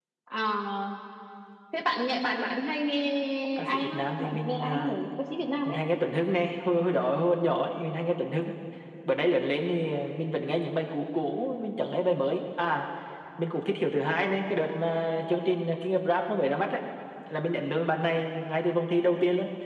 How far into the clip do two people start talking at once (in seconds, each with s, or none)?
3.6 s